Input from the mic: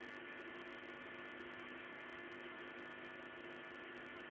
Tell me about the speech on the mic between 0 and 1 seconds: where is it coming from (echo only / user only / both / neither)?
neither